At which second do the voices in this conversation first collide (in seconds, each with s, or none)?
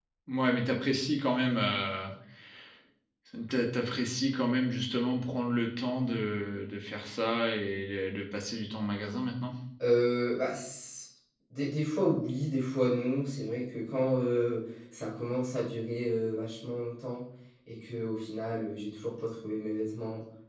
none